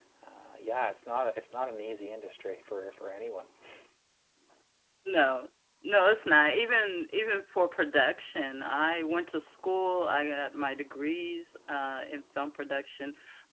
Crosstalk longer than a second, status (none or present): none